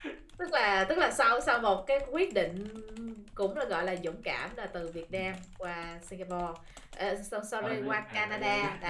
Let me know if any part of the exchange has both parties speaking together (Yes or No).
Yes